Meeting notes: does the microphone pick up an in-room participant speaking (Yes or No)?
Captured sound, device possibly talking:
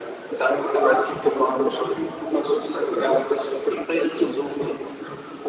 No